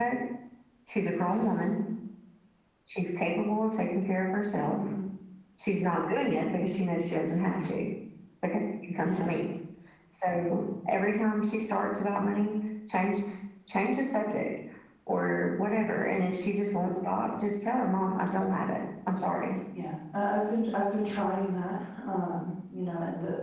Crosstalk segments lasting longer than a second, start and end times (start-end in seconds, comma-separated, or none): none